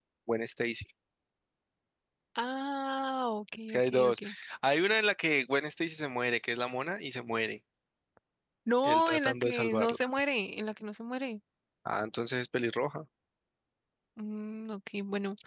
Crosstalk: present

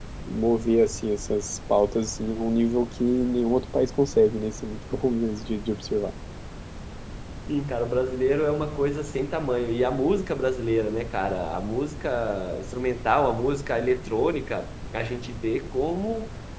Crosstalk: none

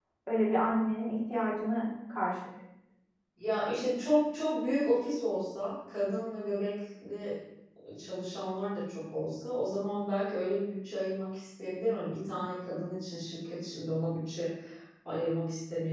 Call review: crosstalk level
none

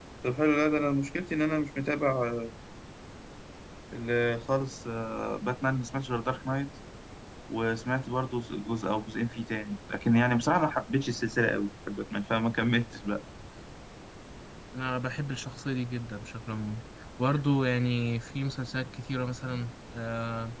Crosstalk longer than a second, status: none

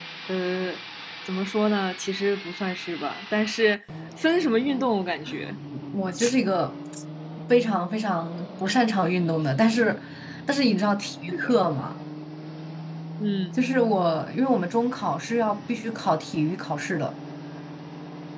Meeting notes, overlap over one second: none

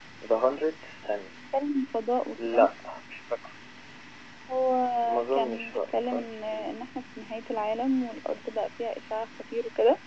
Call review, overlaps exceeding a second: present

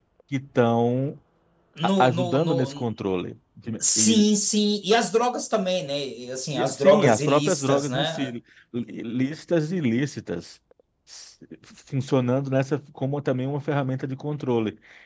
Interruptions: present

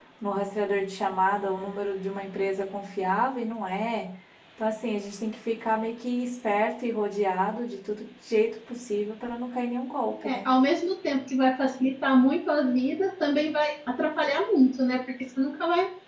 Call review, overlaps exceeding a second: none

